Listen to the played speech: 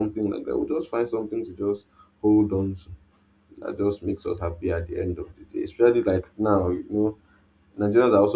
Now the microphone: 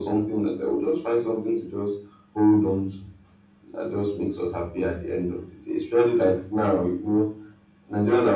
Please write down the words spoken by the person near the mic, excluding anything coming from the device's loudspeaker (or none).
none